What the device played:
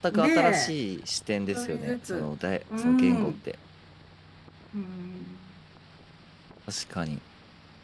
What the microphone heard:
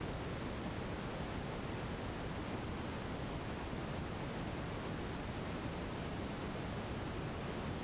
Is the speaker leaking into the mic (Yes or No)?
No